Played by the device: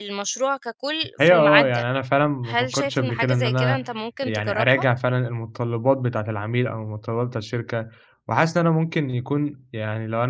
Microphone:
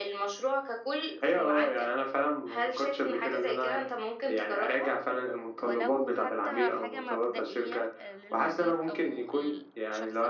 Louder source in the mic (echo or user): echo